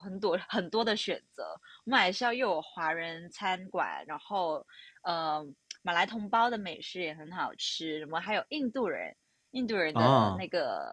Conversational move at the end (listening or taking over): listening